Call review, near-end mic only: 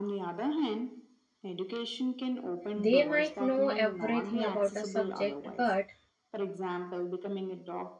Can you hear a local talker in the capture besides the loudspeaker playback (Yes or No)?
Yes